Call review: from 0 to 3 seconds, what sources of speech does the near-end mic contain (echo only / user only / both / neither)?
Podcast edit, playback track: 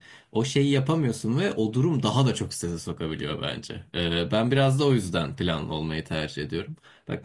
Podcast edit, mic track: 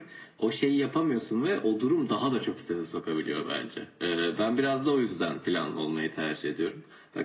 echo only